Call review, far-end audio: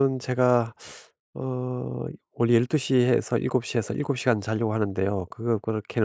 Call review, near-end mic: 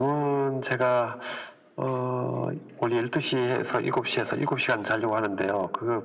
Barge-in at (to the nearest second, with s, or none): none